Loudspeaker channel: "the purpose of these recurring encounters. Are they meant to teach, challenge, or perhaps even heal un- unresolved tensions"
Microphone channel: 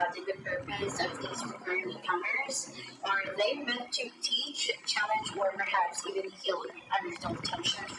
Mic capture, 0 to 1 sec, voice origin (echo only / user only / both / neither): echo only